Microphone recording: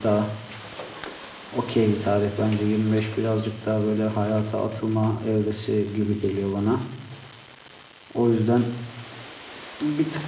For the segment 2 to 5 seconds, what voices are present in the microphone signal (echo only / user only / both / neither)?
user only